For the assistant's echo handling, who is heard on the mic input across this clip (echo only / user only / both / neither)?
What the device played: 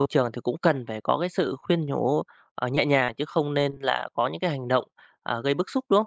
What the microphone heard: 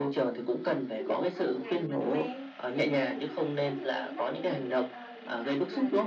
both